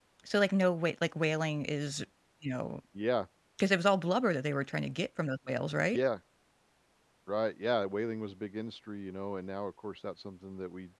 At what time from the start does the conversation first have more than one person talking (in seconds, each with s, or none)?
none